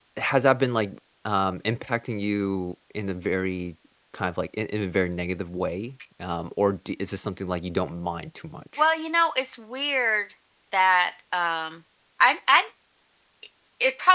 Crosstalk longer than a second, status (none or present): none